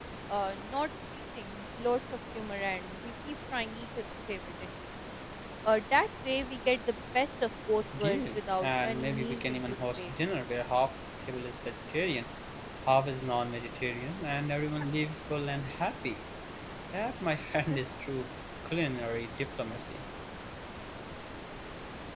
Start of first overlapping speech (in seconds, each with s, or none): 7.9 s